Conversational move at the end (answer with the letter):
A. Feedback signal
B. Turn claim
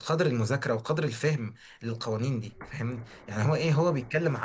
A